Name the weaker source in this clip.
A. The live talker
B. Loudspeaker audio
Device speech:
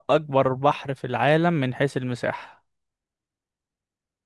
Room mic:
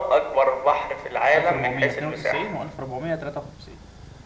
A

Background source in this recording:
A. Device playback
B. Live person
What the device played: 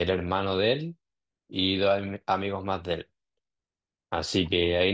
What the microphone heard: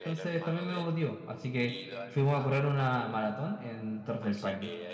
A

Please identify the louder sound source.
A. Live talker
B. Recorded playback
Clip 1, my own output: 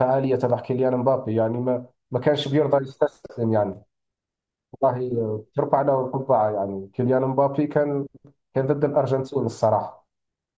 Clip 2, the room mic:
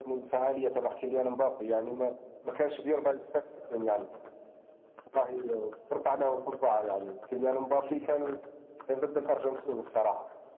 B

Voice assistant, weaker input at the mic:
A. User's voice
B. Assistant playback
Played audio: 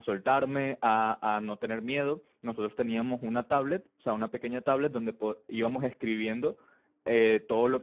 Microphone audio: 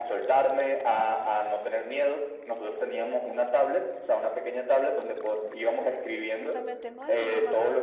A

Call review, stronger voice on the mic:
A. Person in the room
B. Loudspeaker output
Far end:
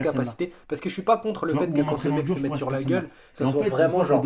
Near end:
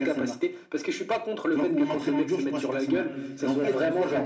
B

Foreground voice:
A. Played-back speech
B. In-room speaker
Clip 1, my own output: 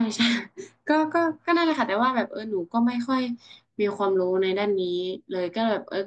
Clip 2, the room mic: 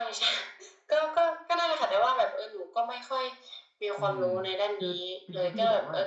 A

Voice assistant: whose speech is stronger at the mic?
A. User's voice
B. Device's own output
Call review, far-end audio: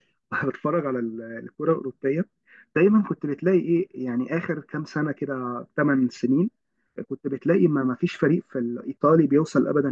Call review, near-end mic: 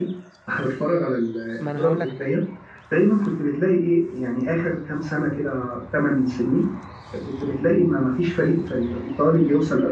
B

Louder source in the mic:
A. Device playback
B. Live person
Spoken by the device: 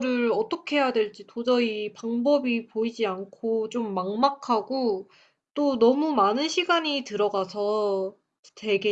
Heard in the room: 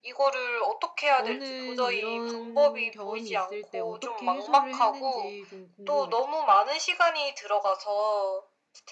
A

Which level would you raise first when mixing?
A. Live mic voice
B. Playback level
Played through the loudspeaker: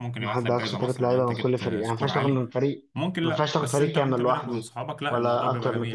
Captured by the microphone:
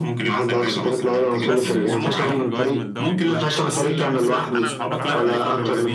A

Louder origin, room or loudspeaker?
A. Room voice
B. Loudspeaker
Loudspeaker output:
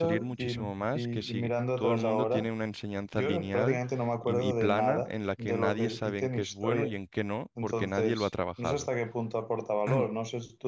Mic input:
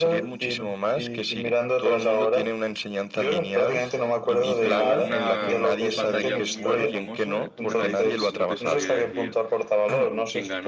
B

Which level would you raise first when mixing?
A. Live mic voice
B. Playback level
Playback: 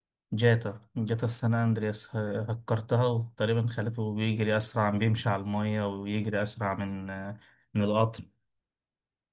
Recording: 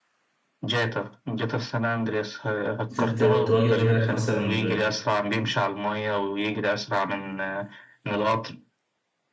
B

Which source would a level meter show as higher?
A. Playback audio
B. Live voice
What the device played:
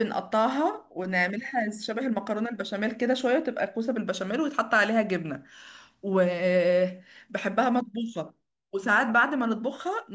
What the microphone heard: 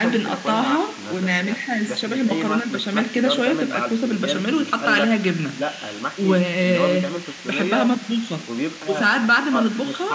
A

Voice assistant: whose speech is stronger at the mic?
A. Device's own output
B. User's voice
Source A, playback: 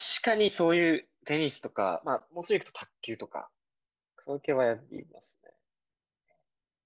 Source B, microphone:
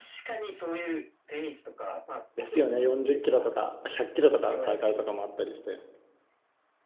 B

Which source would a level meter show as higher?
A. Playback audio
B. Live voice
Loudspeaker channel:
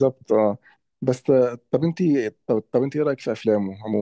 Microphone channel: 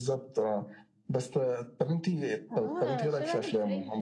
A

